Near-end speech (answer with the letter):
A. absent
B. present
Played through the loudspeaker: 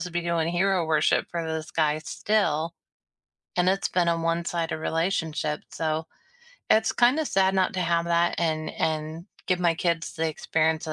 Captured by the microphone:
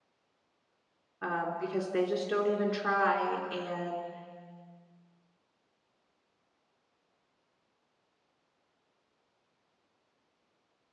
B